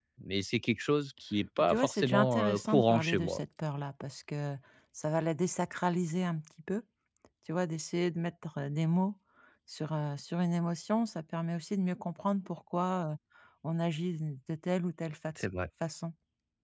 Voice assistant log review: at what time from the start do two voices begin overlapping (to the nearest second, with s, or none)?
2 s